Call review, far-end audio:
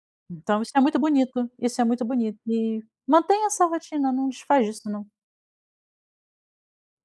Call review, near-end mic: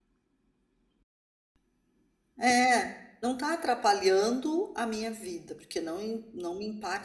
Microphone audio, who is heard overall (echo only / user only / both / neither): user only